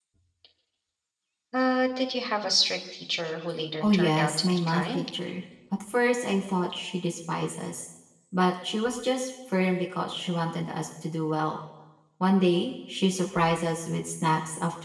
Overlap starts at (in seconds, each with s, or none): 3.8 s